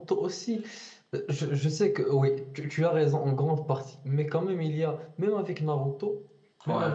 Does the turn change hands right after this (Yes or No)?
No